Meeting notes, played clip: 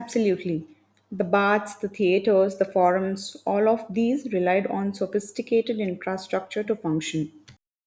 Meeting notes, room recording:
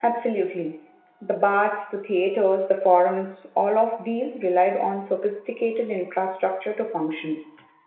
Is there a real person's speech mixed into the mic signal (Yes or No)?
No